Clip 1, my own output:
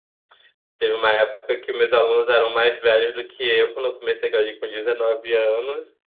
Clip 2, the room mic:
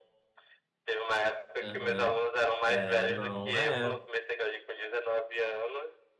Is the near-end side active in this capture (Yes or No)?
Yes